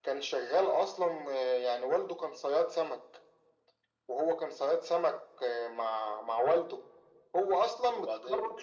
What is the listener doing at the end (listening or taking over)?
listening